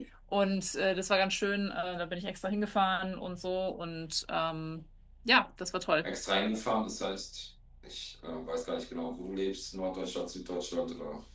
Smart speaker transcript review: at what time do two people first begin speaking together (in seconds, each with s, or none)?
none